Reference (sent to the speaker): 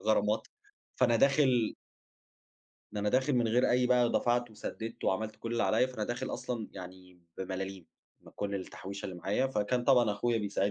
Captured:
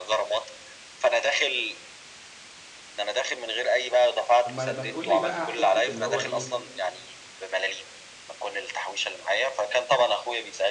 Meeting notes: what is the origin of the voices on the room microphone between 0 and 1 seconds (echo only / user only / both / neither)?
echo only